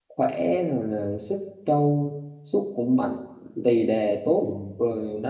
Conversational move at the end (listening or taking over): listening